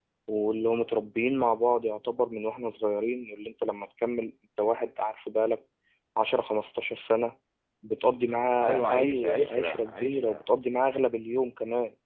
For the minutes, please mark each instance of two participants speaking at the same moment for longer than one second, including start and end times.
8.6-10.4

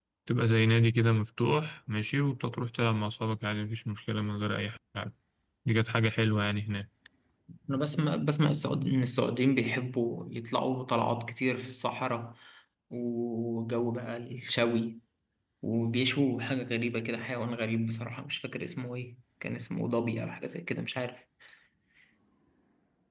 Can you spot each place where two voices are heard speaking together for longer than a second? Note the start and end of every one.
none

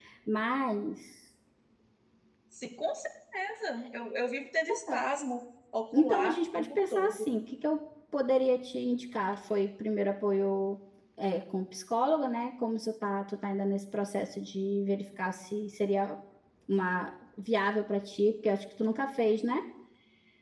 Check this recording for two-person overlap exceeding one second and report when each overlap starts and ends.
6.0-7.3

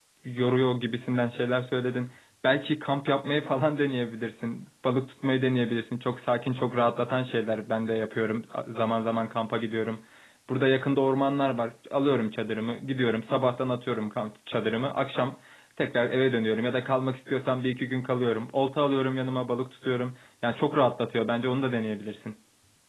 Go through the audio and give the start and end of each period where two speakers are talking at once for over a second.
none

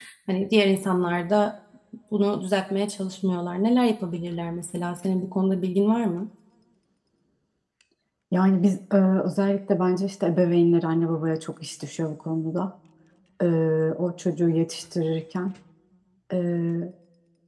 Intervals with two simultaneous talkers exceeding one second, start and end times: none

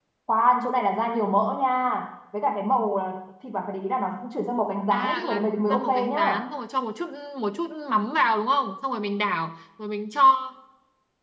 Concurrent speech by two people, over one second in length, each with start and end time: 4.9-6.3

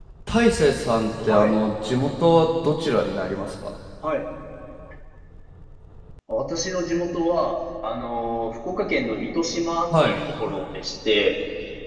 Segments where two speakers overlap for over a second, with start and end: none

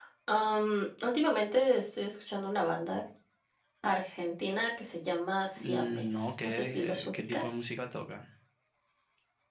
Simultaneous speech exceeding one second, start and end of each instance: 5.6-7.7

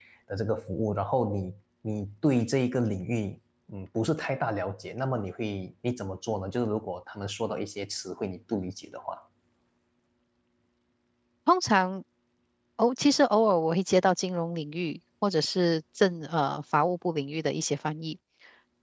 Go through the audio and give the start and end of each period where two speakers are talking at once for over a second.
none

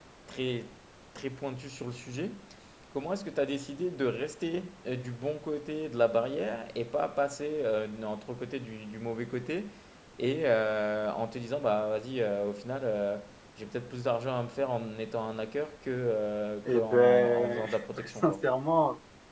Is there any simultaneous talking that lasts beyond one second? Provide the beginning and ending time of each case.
16.6-18.5

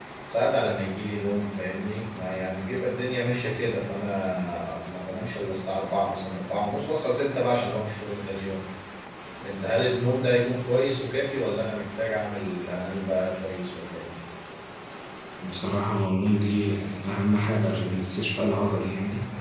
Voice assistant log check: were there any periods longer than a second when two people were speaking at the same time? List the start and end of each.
none

